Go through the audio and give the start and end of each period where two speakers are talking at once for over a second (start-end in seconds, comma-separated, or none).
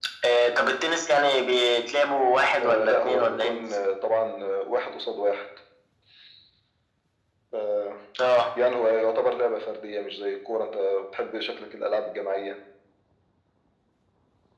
2.6-3.8